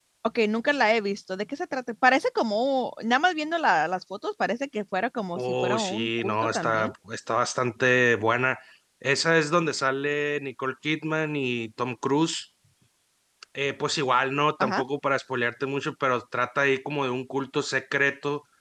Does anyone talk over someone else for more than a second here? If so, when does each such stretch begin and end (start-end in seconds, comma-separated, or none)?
5.4-6.9